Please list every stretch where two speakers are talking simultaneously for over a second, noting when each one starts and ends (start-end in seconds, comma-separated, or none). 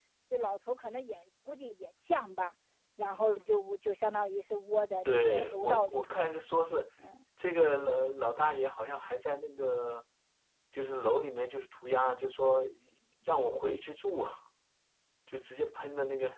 5.0-6.3